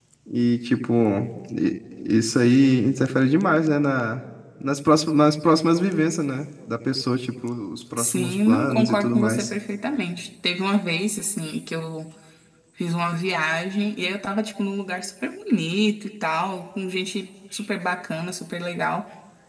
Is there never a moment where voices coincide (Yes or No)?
No